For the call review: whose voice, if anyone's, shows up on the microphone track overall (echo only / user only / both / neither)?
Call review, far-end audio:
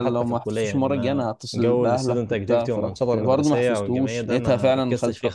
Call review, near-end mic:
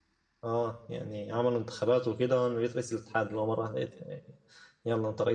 user only